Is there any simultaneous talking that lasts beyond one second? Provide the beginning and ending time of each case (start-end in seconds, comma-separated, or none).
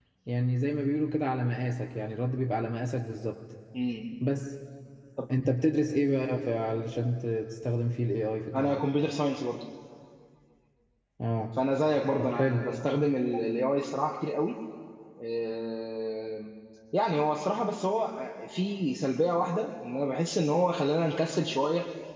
none